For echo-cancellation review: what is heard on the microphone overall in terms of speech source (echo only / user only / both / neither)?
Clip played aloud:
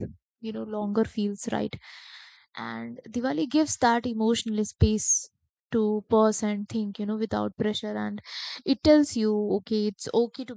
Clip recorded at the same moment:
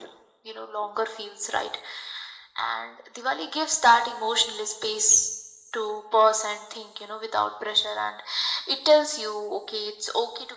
echo only